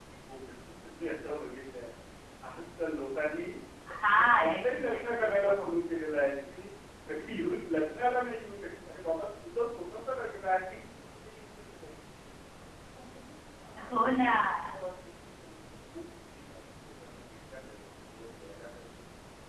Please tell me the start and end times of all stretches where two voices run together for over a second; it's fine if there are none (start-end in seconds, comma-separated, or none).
4.2-5.5